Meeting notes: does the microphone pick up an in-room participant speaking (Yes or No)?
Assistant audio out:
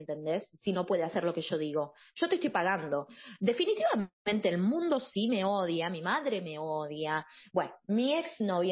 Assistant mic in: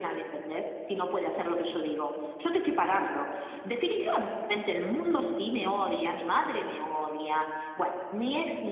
No